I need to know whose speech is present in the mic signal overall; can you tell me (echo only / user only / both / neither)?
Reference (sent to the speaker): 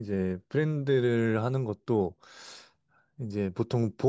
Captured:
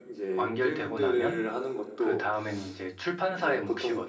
both